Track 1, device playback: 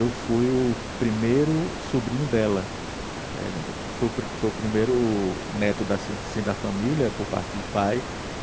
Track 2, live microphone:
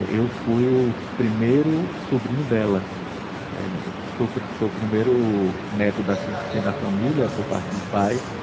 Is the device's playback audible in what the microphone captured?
Yes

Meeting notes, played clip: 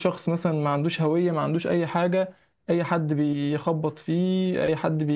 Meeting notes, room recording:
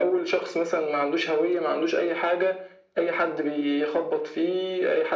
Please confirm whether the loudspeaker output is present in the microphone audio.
Yes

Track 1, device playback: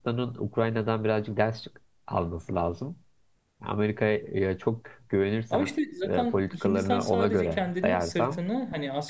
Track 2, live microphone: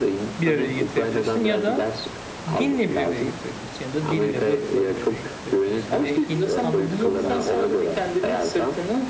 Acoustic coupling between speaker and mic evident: Yes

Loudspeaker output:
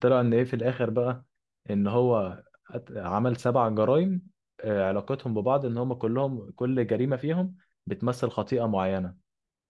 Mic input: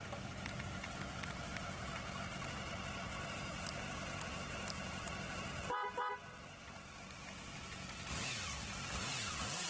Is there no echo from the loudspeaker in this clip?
Yes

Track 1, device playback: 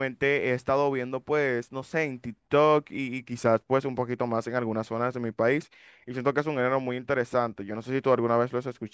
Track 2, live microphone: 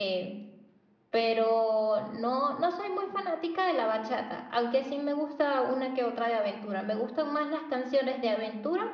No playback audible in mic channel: Yes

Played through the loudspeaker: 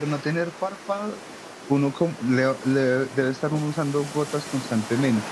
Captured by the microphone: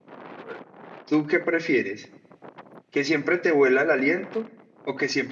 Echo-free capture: Yes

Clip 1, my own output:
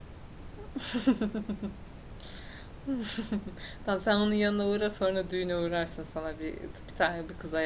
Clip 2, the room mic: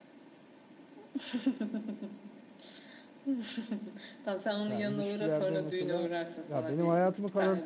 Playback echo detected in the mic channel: Yes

